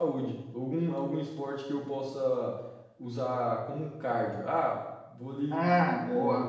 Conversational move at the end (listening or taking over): listening